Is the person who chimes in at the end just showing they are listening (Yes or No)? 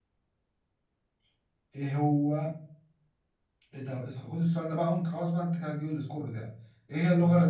Yes